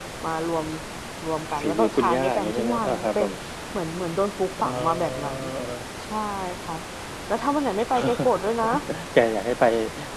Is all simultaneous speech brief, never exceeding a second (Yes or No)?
No